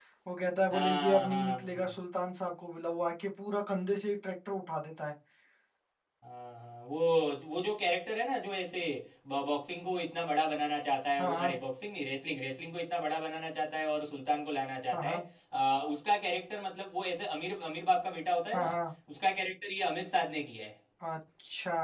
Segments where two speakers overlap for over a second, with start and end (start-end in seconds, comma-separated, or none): 0.7-1.9